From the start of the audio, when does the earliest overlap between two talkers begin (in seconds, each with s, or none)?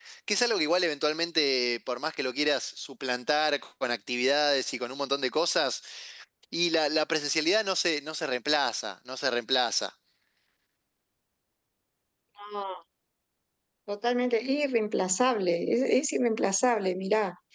none